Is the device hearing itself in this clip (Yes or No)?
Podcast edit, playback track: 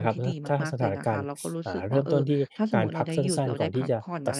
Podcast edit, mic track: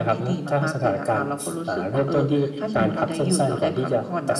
Yes